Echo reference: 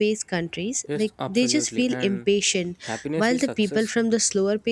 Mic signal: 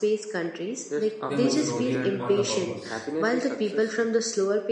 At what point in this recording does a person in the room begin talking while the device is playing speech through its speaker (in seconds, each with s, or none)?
1.2 s